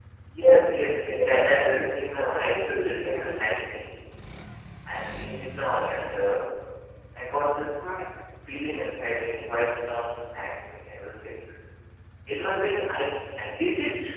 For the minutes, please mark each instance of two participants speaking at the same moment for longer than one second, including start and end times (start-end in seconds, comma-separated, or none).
1.1-3.5